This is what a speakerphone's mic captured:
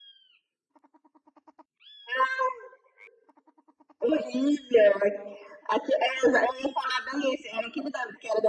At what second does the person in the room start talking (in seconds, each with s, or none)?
none